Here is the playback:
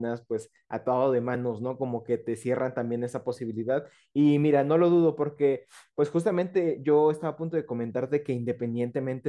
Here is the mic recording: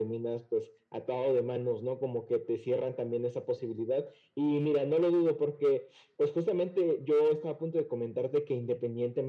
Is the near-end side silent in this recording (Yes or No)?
Yes